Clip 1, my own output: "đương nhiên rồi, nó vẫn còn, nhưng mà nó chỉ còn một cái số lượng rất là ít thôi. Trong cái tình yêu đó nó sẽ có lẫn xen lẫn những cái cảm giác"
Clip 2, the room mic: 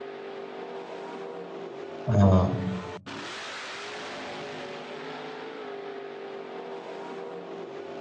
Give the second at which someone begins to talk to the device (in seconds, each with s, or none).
2.0 s